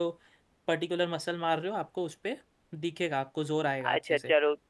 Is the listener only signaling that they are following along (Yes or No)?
No